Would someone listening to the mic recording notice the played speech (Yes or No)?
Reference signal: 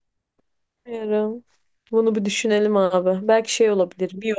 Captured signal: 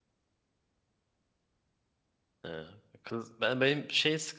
No